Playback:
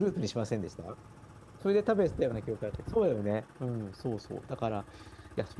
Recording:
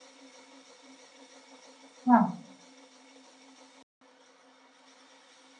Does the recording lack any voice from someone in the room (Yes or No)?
No